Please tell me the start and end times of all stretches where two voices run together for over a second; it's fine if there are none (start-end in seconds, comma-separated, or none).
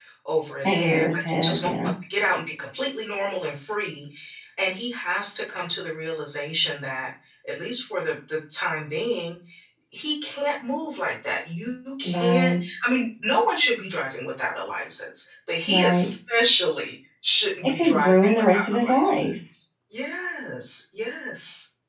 0.6-1.9, 17.6-19.1